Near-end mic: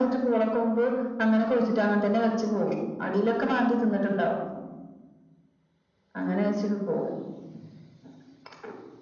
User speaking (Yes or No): No